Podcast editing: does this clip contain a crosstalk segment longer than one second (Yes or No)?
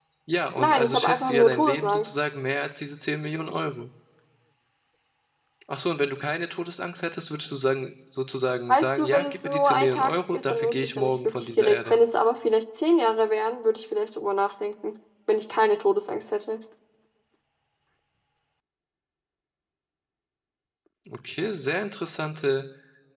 Yes